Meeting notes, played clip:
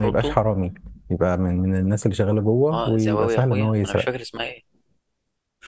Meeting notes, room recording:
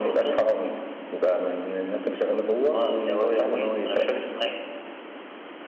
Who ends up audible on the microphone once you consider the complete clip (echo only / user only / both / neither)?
echo only